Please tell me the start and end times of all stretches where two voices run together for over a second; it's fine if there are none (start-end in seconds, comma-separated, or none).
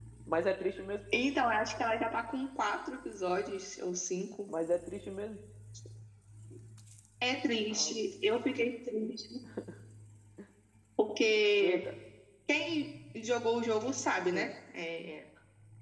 none